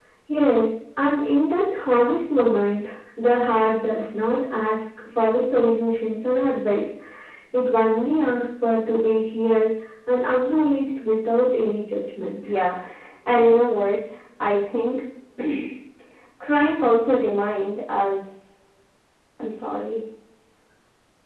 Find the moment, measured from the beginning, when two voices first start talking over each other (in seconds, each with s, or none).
none